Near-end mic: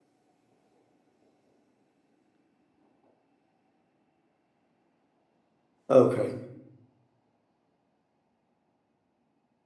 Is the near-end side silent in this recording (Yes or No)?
No